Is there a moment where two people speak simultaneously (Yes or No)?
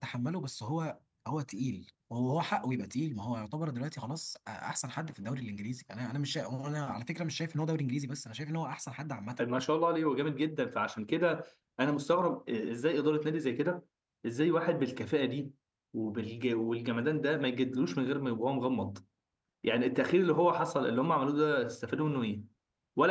No